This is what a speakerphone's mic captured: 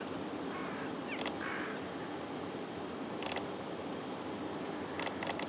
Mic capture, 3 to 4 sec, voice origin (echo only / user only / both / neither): neither